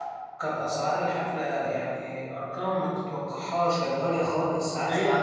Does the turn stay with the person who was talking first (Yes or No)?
Yes